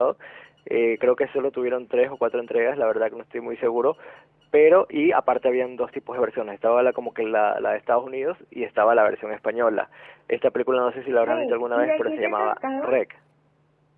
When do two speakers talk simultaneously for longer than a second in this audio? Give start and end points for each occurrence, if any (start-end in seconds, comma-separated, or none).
11.2-12.9